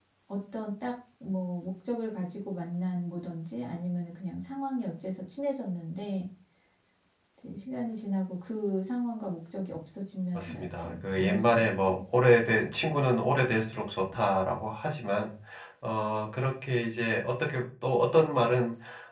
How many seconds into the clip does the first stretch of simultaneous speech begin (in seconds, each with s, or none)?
10.3 s